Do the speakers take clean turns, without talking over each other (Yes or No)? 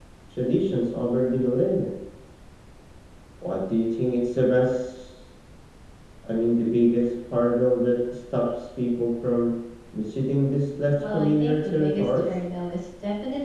No